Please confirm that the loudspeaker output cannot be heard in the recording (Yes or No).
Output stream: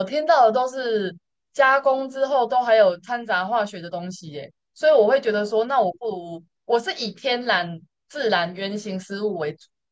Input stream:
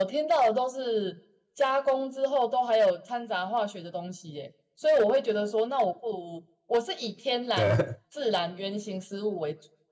No